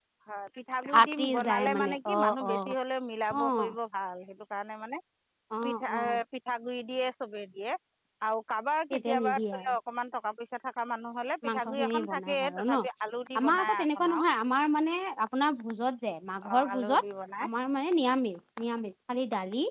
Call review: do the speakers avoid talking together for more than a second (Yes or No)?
No